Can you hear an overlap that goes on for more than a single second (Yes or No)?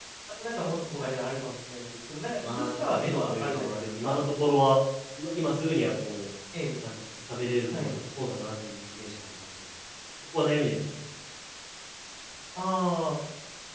Yes